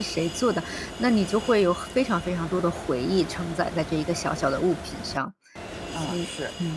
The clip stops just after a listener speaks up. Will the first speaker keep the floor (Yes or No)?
No